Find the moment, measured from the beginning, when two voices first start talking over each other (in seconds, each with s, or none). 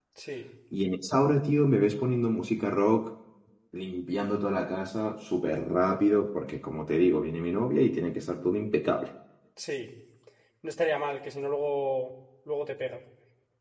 none